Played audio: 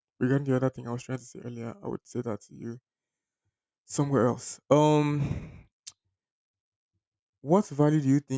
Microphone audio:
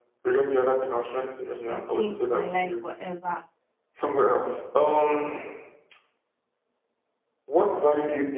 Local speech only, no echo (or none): that changed my life forever.